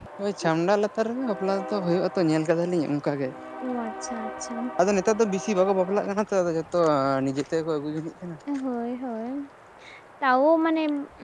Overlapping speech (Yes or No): No